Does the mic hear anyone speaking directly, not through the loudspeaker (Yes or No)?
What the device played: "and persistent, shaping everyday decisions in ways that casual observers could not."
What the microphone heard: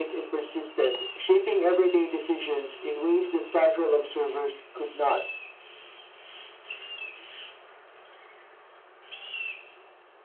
No